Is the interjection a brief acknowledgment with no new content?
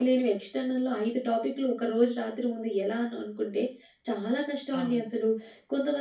Yes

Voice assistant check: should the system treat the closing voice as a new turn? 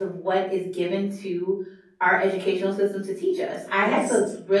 No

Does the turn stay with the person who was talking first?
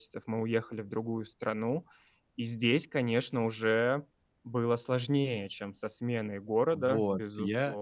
No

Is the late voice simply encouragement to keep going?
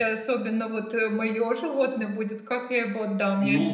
No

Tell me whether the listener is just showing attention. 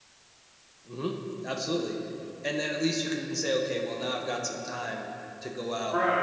No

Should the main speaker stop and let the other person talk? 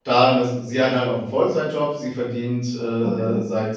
No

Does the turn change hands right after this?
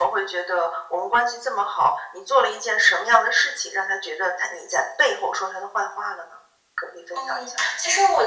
Yes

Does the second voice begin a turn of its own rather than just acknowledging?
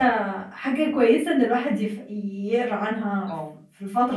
No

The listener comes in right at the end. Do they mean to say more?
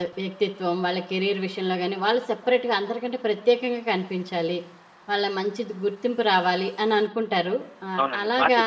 Yes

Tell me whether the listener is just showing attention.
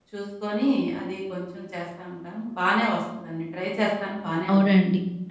No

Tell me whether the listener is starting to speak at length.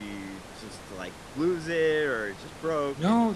Yes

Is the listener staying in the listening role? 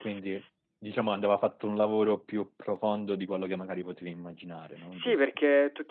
No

